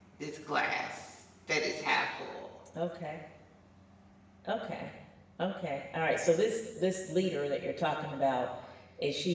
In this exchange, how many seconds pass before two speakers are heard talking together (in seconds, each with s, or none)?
none